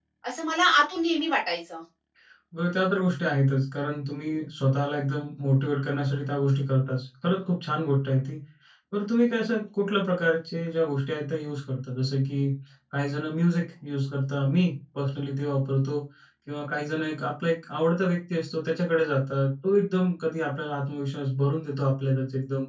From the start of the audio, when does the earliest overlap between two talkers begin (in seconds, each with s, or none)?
none